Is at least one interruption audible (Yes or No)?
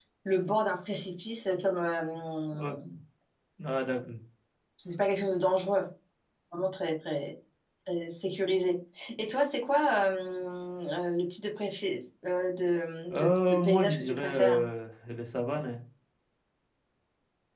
Yes